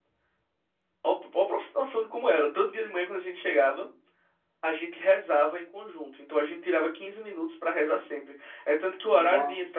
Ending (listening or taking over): listening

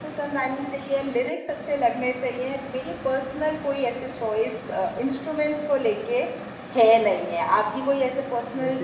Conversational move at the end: taking over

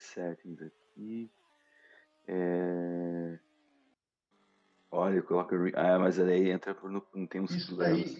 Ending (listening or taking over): taking over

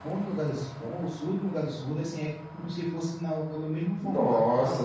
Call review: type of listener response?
taking over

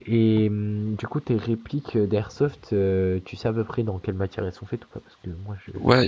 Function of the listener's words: taking over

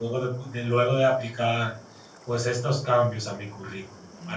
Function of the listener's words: taking over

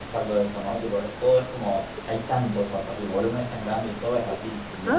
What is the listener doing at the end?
taking over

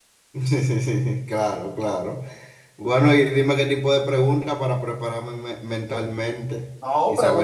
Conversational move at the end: taking over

